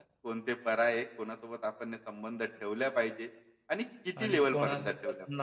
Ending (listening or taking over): taking over